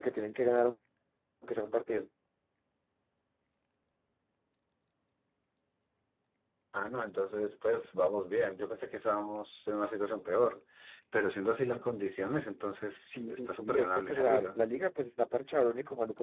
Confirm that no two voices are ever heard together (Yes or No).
No